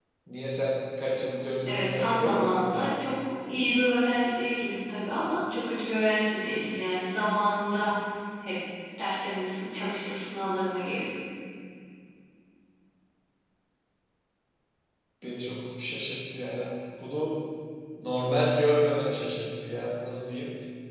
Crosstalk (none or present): present